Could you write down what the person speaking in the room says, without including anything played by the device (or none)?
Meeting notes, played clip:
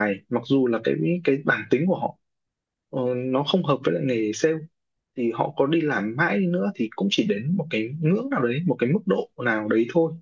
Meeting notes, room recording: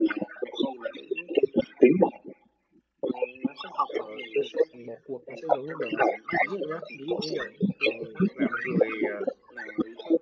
ờ, đừng bỏ cuộc nó sẽ giống như kiểu này ví dụ nhá ví dụ như kiểu Tường là một người ờ,